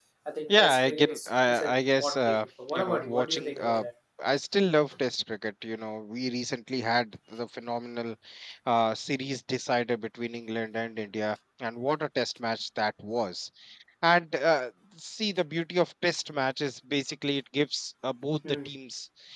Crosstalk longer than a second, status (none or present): present